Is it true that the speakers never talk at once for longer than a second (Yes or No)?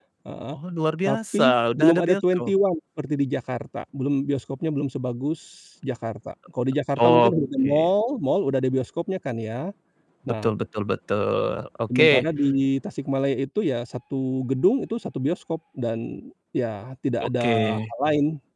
No